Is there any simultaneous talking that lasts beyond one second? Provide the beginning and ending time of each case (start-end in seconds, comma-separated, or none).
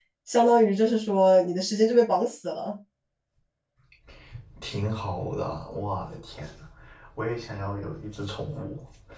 none